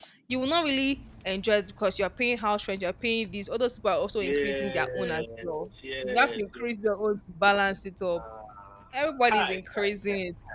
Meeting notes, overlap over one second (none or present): present